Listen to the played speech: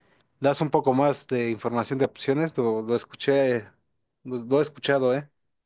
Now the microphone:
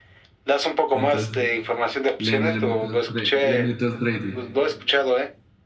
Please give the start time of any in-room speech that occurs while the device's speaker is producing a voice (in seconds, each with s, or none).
0.9 s